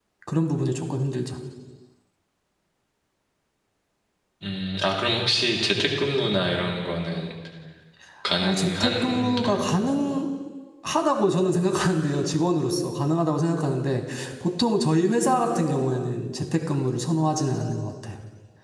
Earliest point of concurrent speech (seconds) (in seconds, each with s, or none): 8.4 s